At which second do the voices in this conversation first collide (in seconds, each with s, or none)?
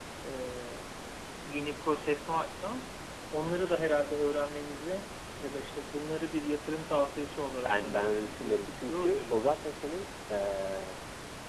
7.6 s